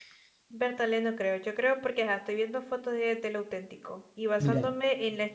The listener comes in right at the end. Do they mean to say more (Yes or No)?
No